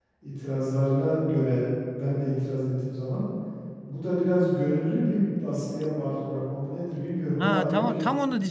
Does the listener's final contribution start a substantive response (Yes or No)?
Yes